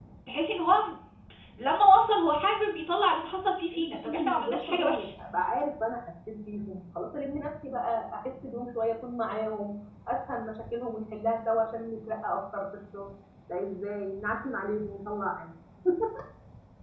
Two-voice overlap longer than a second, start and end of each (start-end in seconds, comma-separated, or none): 3.7-5.1